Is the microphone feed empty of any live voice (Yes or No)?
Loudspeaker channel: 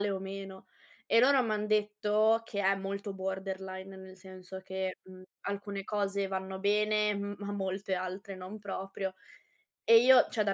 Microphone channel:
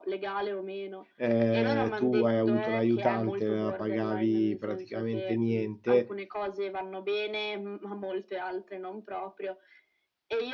No